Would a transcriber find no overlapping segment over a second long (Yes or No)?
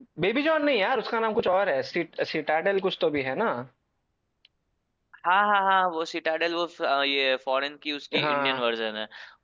Yes